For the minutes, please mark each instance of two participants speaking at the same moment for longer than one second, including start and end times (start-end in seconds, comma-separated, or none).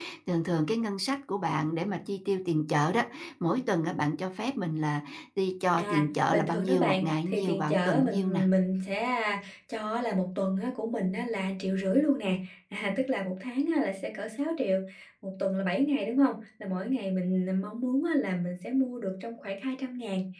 5.8-8.4